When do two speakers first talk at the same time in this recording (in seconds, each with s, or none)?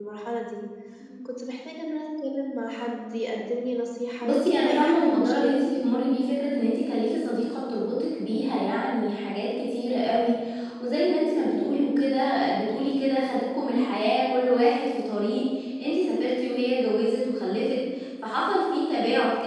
4.2 s